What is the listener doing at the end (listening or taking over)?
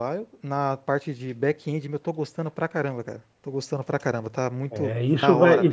taking over